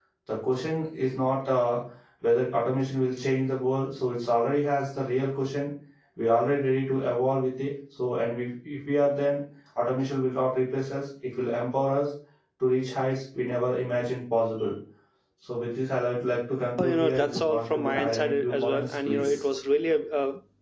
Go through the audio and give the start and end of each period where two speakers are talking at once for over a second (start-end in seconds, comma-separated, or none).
16.8-19.4